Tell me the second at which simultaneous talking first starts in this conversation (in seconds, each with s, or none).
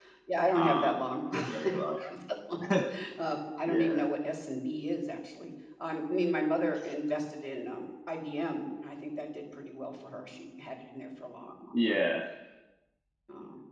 0.5 s